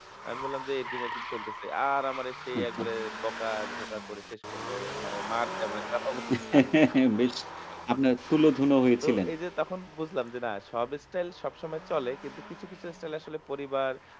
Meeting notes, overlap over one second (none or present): none